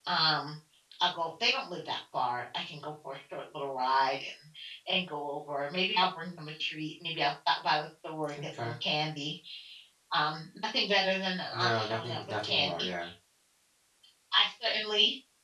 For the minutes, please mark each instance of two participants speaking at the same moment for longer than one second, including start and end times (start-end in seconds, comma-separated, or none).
11.5-12.9